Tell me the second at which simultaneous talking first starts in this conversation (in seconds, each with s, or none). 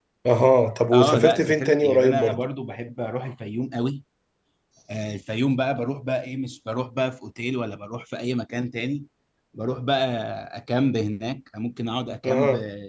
0.9 s